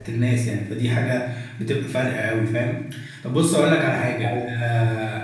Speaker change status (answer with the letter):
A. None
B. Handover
A